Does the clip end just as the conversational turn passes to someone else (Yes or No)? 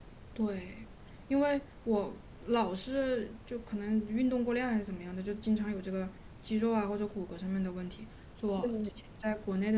No